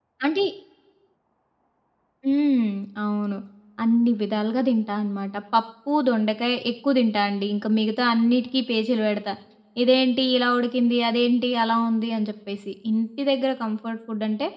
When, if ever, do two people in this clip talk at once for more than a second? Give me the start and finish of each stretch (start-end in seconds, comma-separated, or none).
none